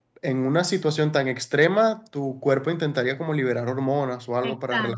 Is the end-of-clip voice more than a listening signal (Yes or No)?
Yes